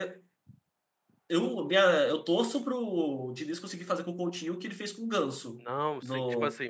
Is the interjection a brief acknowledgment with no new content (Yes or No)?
No